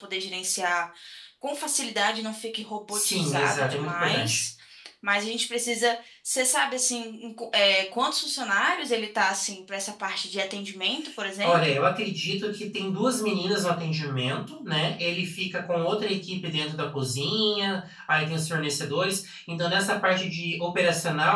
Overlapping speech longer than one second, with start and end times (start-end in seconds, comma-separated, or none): 2.9-4.4